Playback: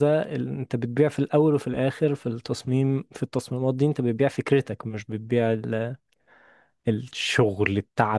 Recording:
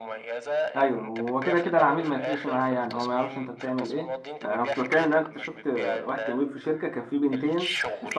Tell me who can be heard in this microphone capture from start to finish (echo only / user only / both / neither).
both